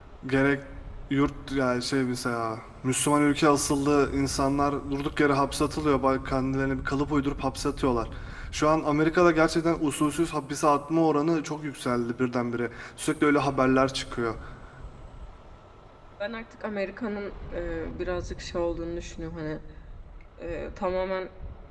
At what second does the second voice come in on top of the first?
none

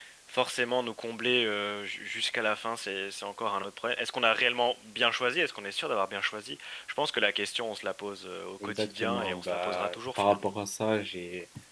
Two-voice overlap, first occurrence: 9 s

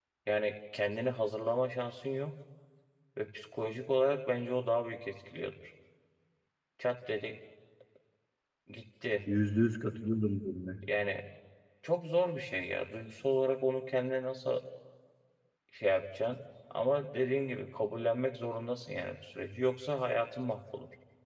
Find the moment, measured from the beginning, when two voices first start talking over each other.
none

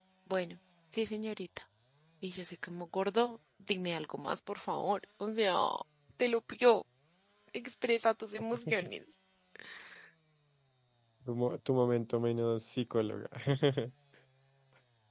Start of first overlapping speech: none

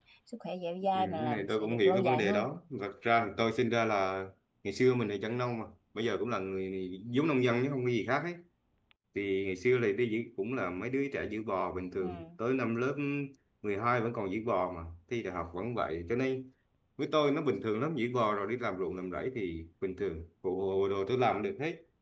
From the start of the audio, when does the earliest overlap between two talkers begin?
1 s

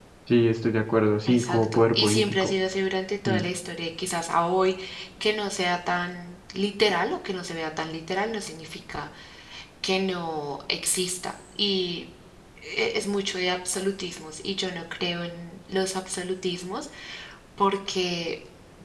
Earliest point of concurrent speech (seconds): 1 s

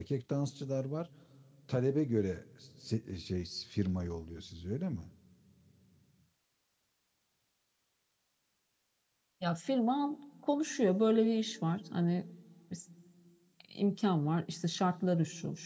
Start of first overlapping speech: none

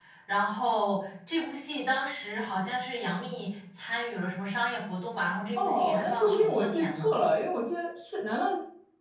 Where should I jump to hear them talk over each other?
6 s

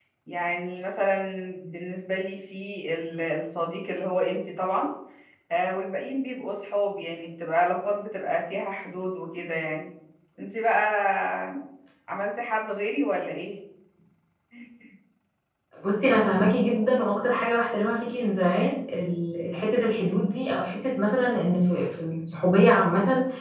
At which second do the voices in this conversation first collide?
none

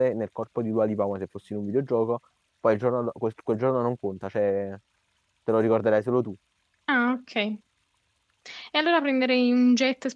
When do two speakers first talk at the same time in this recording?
none

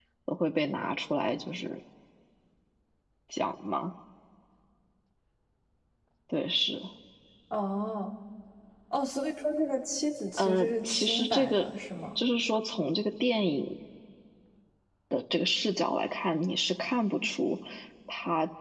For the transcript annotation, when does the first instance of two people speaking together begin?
10 s

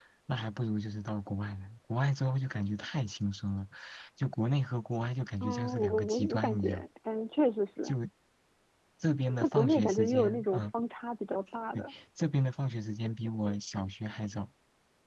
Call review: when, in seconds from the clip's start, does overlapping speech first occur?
5 s

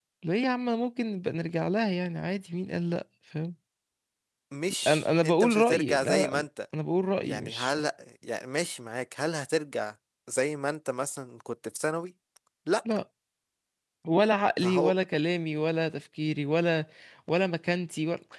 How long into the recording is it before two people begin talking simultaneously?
5 s

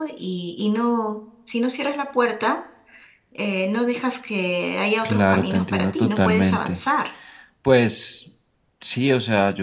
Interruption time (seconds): 5 s

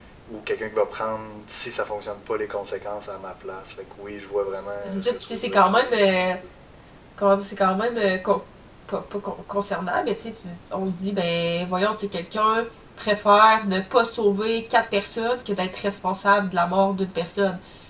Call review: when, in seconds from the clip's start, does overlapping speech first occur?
5 s

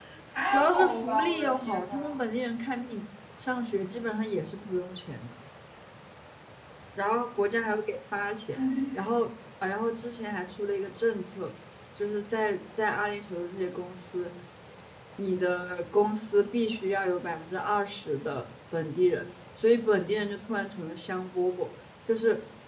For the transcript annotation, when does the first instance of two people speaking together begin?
1 s

